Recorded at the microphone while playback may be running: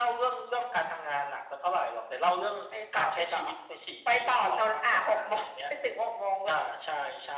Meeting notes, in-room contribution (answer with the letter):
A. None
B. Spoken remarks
A